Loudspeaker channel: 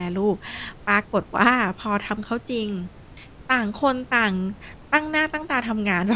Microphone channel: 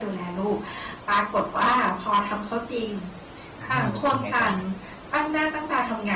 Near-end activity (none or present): present